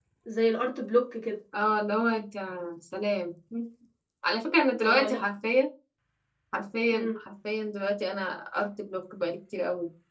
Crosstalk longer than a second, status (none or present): none